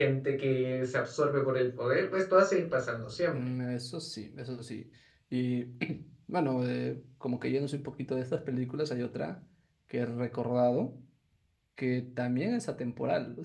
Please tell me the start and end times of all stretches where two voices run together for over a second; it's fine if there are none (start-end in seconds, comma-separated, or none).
none